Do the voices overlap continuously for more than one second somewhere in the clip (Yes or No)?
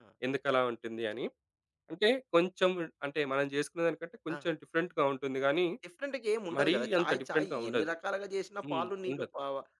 Yes